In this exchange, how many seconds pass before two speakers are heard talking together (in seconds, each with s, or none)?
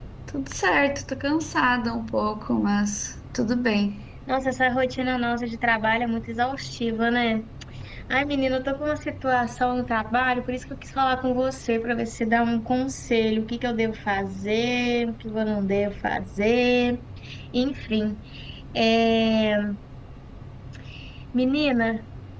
none